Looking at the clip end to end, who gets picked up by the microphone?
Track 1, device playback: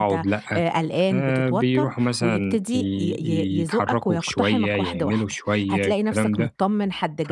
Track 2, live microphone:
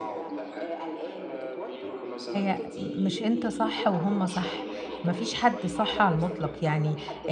both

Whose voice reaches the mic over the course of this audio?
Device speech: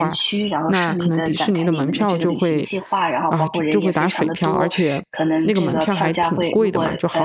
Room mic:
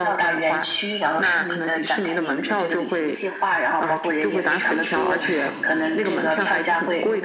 both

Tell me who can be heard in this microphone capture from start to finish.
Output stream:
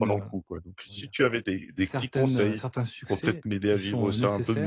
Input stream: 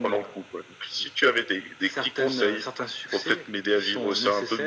echo only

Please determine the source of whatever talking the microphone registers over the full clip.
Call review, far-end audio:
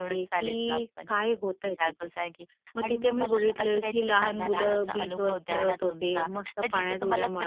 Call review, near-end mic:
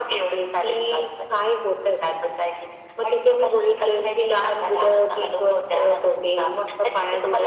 echo only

